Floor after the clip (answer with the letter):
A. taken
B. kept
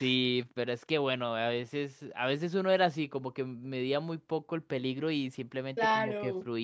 B